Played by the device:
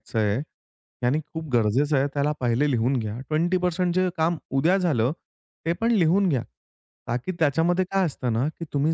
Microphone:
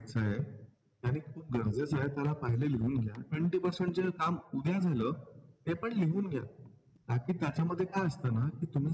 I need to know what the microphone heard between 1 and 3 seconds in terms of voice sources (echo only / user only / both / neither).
echo only